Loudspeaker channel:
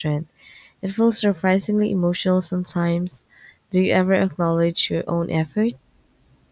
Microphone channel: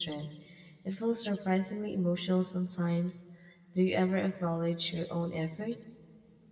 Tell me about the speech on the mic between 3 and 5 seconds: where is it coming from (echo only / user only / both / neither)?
echo only